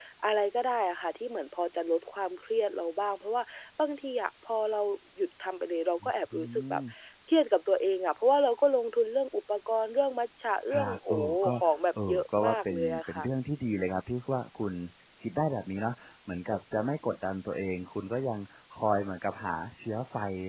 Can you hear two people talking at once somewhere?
Yes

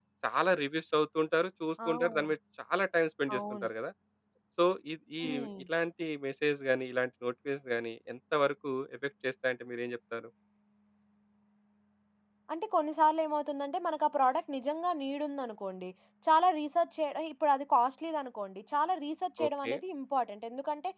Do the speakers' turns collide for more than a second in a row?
No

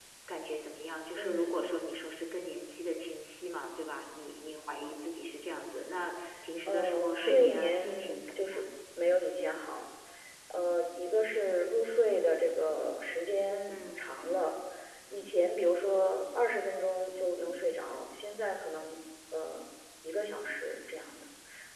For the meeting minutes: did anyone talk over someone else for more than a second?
Yes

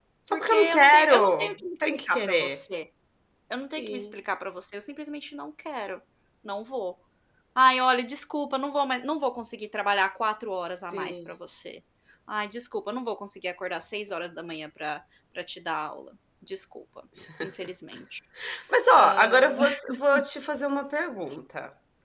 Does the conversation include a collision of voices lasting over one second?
Yes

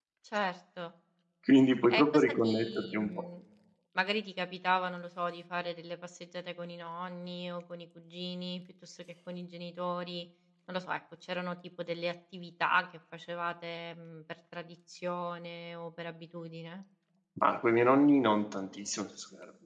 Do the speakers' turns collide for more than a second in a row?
Yes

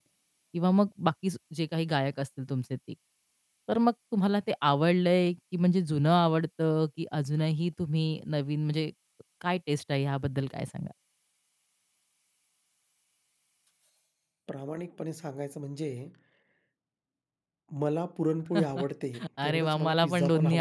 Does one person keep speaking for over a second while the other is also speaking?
Yes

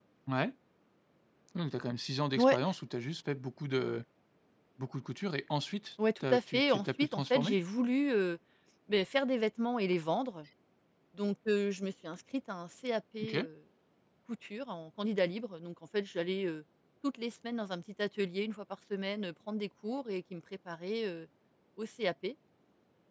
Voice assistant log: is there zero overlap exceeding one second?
No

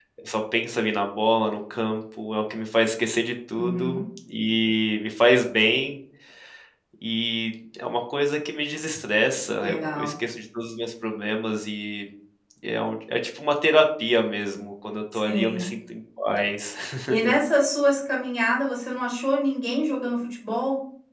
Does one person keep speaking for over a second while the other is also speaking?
No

